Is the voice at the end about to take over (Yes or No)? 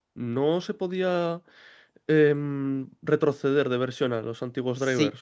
Yes